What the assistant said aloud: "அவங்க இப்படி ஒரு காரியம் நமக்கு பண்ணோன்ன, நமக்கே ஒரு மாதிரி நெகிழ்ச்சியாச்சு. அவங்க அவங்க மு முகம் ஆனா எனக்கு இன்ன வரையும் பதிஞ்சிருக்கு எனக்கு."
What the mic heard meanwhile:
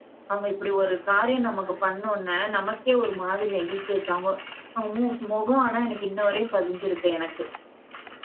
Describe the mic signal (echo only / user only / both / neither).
echo only